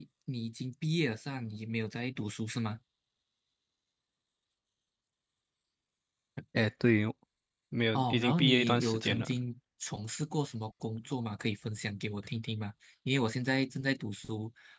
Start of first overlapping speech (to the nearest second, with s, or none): 8 s